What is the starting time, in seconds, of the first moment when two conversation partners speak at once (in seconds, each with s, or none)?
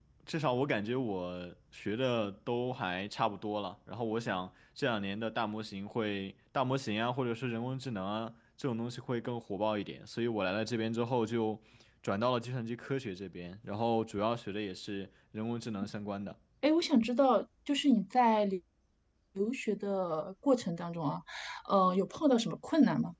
none